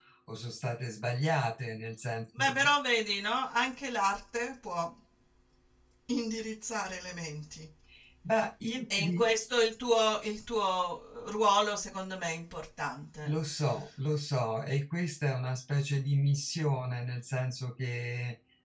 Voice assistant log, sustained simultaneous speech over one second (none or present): none